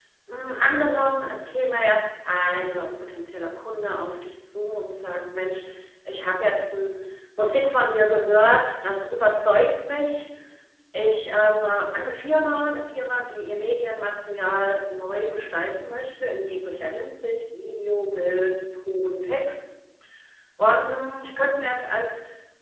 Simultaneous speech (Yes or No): No